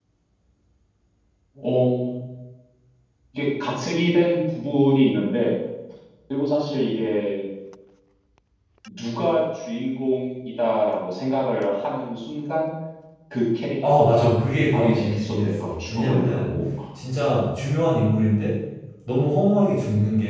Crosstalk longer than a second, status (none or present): present